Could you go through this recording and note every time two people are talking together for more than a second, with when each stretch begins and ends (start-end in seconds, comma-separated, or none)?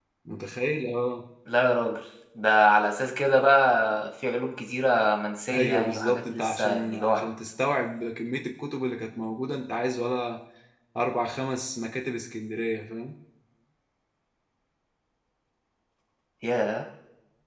5.5-7.3